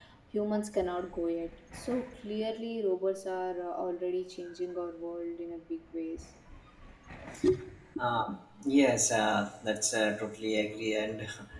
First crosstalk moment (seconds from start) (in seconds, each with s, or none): none